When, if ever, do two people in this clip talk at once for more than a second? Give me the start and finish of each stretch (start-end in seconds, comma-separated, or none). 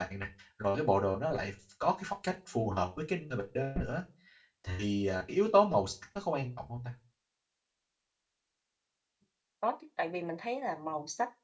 none